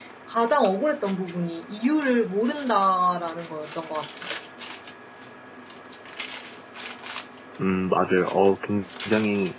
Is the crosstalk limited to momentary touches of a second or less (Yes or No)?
Yes